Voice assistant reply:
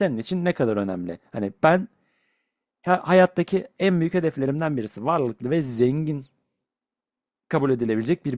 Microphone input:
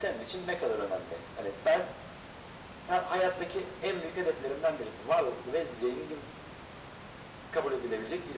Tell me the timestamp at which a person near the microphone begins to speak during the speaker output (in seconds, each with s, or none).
none